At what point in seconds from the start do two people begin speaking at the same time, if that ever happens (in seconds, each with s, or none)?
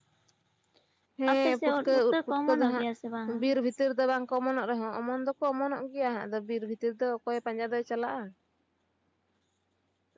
1.3 s